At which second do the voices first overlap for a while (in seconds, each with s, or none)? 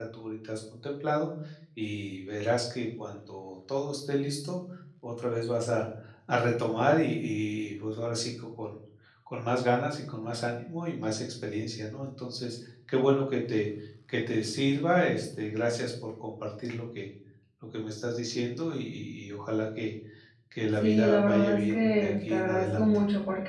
20.8 s